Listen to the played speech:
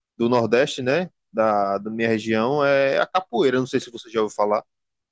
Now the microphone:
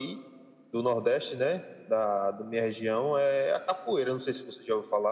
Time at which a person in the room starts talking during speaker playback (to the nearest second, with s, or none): none